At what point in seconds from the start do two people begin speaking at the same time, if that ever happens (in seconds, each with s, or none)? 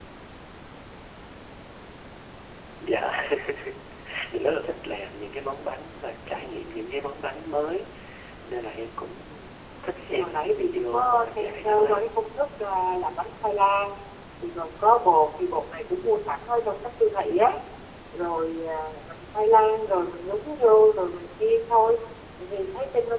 10.1 s